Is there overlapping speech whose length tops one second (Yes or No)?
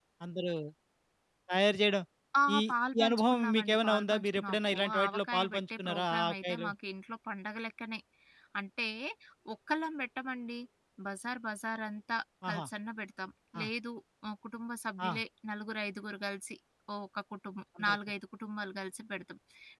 Yes